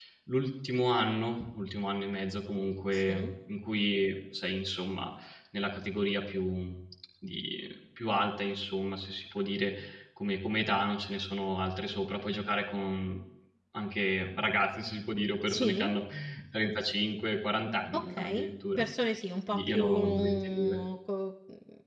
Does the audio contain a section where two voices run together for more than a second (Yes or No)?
Yes